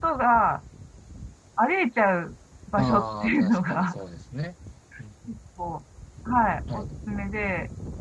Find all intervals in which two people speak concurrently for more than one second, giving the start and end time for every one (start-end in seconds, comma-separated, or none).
2.8-4.0